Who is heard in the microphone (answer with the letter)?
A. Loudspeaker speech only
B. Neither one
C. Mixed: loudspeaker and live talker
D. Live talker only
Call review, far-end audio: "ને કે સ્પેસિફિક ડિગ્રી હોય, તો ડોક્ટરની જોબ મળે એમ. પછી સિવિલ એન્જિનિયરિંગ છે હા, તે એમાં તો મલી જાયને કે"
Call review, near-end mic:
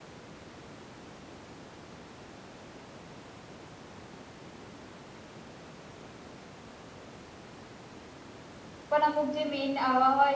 D